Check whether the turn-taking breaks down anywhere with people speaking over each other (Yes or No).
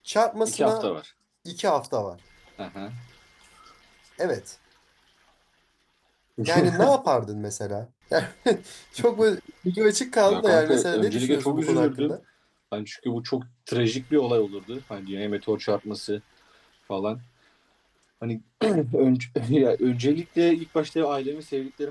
Yes